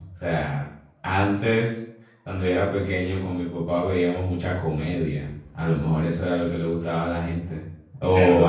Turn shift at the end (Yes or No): Yes